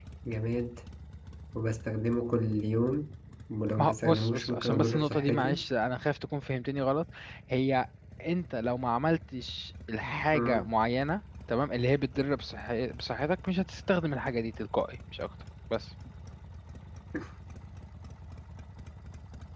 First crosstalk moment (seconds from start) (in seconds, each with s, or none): 3.8 s